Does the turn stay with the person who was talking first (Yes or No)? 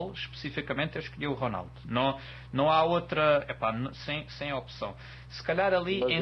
Yes